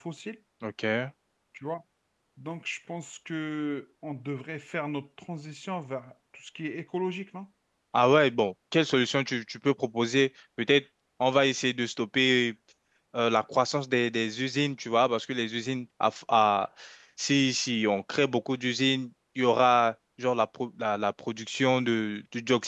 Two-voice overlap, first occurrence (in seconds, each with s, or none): none